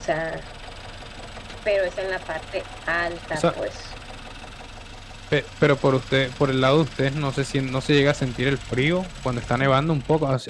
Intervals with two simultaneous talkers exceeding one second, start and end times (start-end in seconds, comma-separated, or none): none